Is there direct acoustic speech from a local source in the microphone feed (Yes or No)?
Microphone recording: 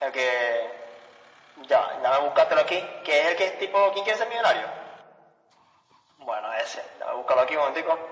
No